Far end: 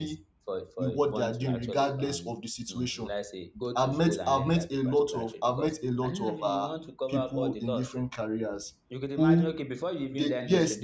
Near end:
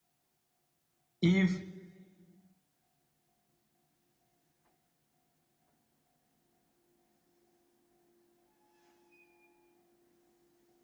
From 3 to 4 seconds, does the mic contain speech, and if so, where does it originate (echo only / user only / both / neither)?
neither